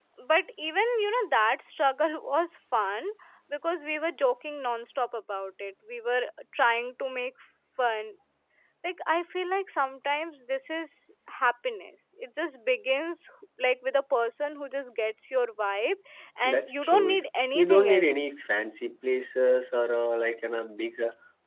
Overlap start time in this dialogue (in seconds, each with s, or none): 16.4 s